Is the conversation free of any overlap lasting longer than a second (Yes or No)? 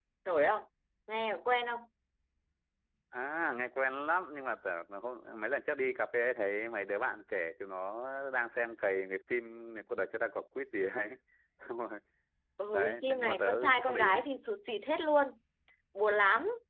No